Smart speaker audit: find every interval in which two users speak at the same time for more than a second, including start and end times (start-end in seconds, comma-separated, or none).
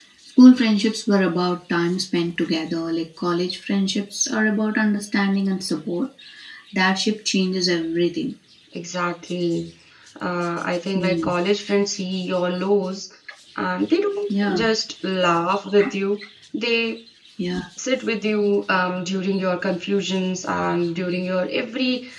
none